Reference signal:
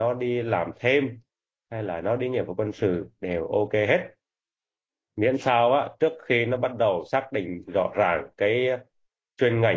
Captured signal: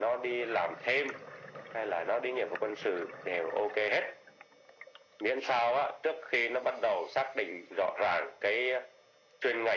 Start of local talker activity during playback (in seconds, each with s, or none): none